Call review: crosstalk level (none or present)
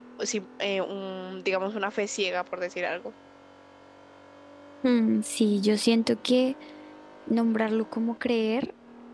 none